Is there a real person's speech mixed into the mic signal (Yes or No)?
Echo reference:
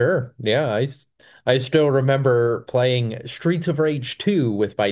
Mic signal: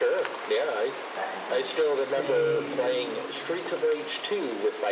Yes